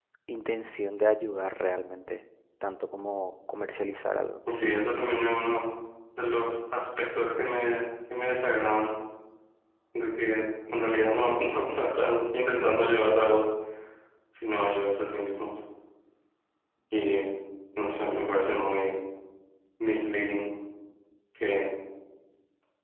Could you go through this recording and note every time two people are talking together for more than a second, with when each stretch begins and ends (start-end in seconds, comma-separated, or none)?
none